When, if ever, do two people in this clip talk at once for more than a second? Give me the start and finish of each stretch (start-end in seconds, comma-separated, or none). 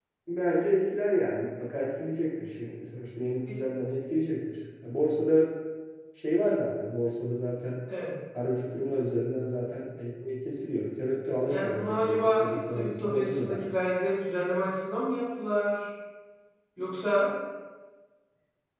11.5-13.7